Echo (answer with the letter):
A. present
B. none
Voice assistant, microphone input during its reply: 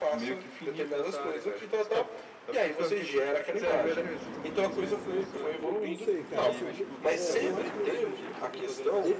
A